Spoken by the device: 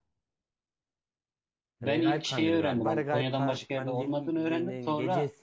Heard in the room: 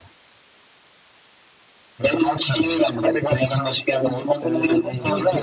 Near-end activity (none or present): present